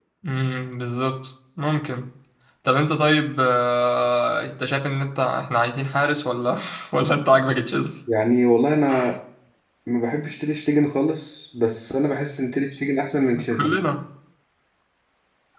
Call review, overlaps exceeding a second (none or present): none